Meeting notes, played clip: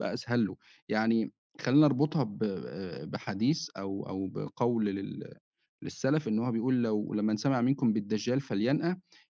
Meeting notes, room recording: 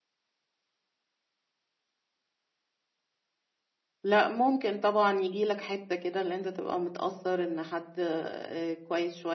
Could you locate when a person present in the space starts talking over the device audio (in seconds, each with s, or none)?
4.0 s